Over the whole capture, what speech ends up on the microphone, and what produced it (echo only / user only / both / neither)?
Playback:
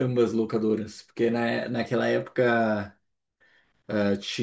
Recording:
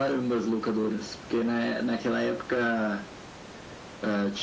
echo only